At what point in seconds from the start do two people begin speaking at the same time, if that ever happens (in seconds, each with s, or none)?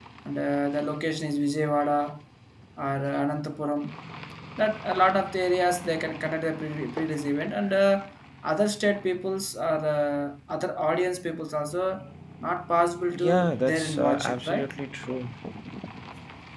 13.1 s